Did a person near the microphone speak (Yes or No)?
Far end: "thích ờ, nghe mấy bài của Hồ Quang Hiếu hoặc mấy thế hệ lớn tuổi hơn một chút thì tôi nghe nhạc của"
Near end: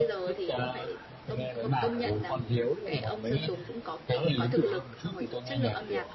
Yes